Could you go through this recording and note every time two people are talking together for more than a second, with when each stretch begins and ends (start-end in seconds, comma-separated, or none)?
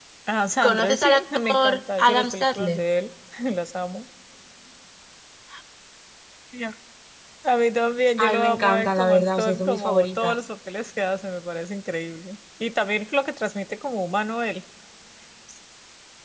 0.6-2.8, 8.2-10.4